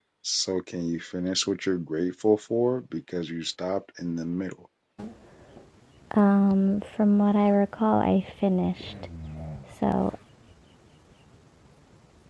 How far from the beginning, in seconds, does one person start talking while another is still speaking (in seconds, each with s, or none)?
none